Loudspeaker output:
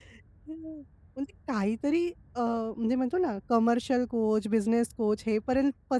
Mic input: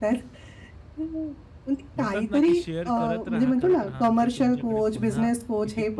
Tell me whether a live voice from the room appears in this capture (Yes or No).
Yes